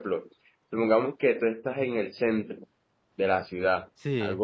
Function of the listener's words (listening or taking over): listening